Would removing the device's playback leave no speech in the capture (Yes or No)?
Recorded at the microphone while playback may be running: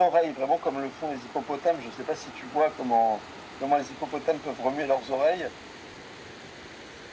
Yes